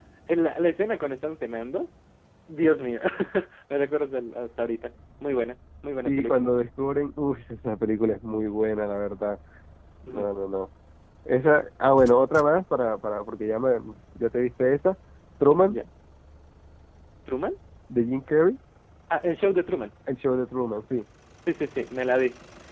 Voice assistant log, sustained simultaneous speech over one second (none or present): none